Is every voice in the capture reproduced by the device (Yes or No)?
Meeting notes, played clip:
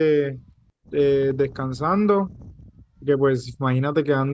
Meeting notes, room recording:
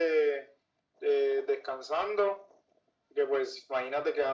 Yes